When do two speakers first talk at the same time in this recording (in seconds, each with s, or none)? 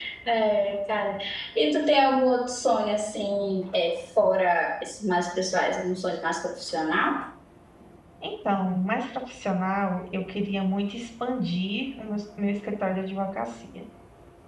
none